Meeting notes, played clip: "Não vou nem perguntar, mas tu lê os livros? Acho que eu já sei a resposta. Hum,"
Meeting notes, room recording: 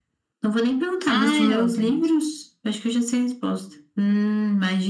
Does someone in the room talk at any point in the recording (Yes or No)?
Yes